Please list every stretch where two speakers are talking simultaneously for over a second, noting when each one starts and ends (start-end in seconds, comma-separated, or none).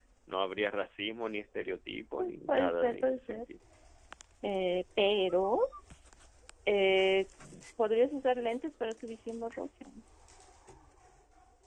2.2-3.4